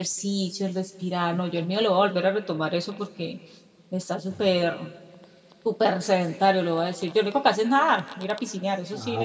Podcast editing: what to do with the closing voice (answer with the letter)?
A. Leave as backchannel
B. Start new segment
B